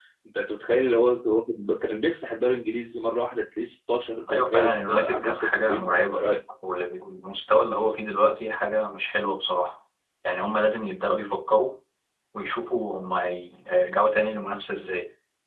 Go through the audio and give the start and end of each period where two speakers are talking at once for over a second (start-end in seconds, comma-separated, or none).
4.3-6.2